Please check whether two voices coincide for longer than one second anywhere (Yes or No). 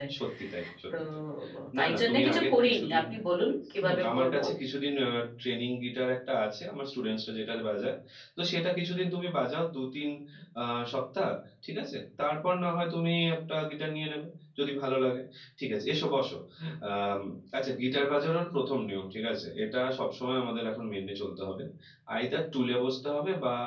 Yes